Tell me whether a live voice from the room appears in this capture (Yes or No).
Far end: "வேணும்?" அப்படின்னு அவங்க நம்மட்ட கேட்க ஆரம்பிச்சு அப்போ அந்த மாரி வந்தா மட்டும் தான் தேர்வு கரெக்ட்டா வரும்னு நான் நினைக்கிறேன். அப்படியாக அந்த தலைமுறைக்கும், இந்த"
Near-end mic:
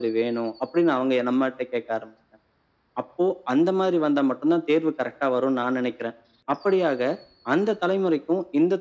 No